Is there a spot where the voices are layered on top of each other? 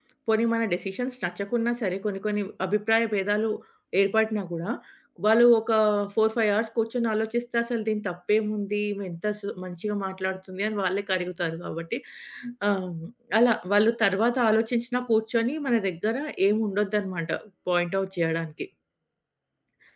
No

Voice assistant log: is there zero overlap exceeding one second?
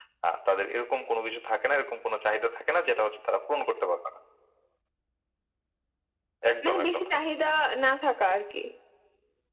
Yes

